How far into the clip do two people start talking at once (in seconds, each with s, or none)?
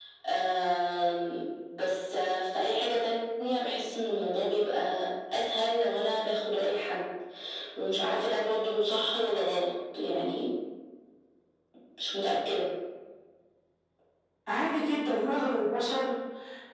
none